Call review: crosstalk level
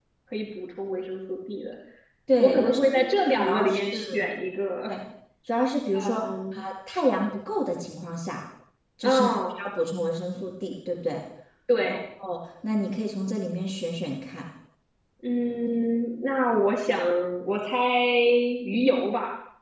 present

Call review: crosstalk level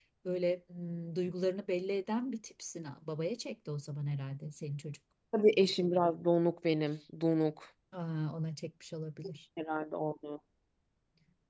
none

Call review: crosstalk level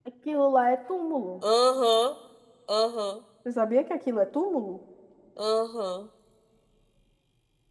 none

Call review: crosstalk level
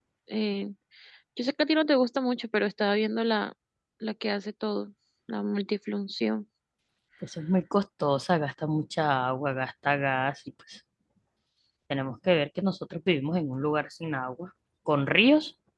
none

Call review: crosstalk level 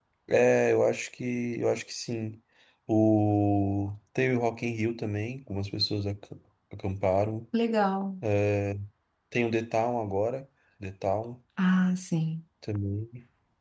none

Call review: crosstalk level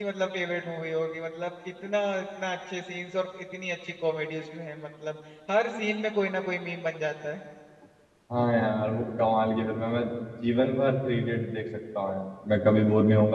none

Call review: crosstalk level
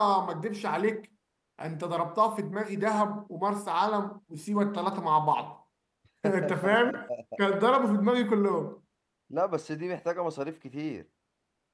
none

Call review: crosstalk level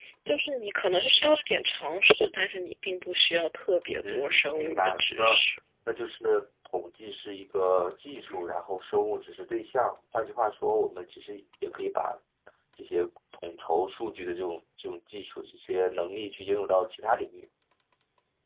present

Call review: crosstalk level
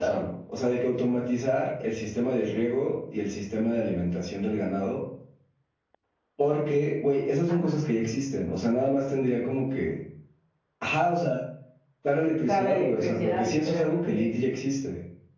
present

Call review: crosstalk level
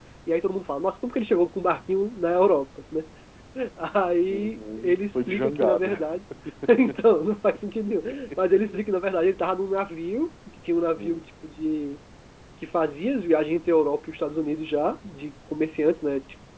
present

